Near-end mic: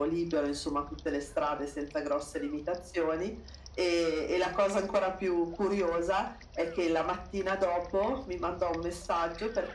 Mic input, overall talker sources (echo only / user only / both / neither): echo only